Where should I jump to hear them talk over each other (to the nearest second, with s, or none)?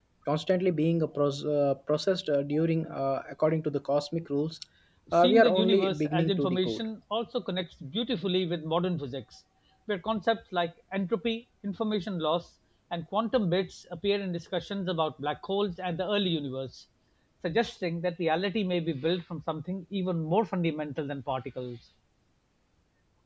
5 s